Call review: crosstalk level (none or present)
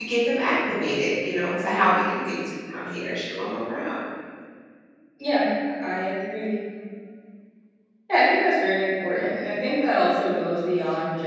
none